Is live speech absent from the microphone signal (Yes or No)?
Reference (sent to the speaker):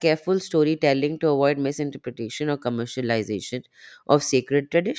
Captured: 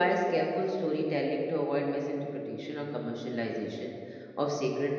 Yes